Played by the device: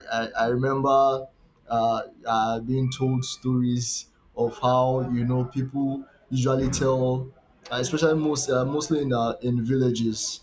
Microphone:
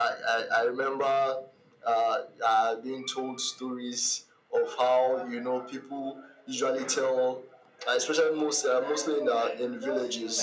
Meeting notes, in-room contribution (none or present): present